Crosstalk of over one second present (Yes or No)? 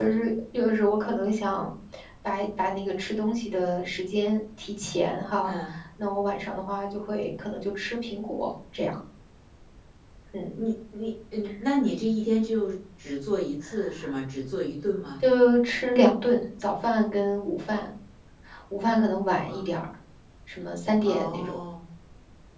No